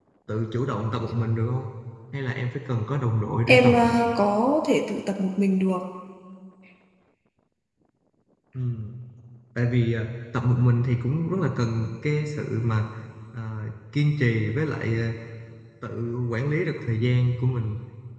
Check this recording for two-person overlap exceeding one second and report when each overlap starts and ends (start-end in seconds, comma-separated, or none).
none